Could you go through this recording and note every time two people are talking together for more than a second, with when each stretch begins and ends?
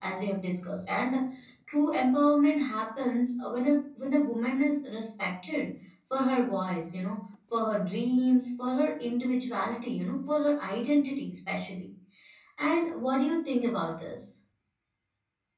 none

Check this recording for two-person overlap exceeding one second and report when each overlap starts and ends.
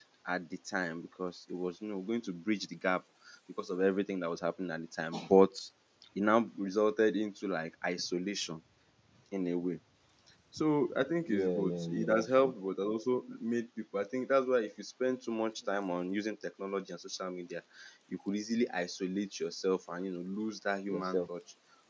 11.3-12.5

